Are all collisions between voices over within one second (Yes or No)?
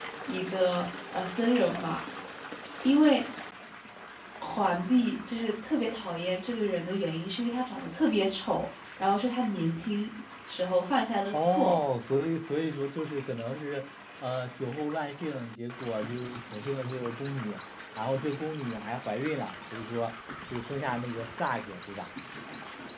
Yes